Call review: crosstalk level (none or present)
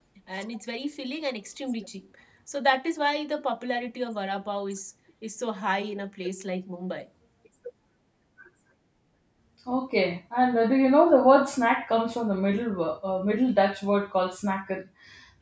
none